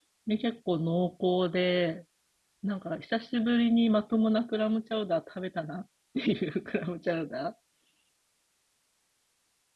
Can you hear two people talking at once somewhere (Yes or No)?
No